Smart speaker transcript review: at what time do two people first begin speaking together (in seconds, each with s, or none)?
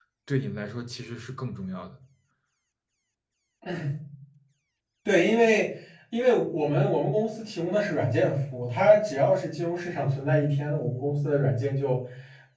none